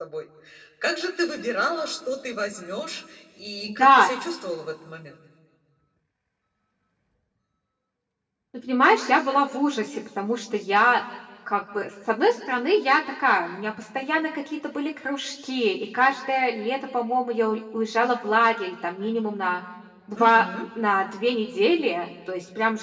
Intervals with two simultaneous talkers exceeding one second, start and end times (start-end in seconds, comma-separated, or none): none